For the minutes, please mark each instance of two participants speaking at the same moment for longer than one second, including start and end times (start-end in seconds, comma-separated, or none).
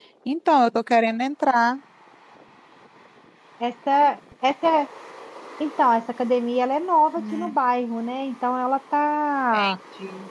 none